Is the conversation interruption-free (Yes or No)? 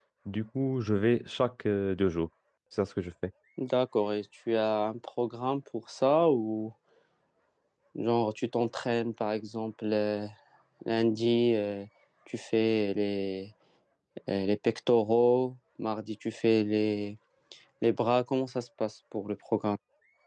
Yes